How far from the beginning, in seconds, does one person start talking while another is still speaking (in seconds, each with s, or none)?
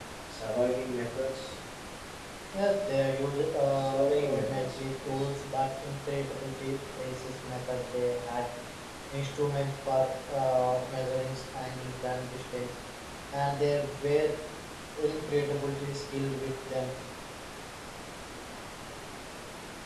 3.7 s